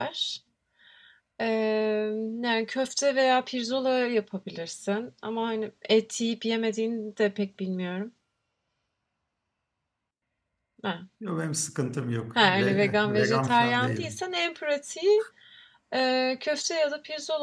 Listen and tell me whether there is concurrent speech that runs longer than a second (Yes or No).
Yes